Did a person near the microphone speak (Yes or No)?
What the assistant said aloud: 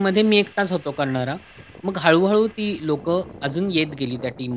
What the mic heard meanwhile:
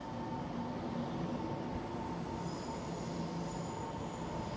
No